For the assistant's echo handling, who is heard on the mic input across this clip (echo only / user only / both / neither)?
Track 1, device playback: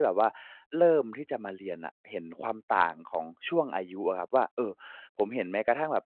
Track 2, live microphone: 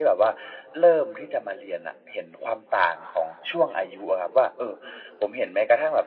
echo only